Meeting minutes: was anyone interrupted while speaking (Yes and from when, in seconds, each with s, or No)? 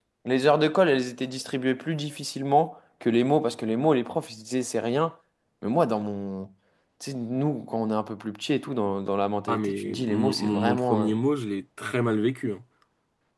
Yes, from 9.5 s